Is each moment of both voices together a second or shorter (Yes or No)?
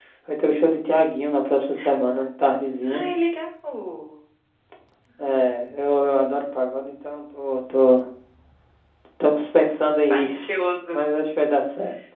Yes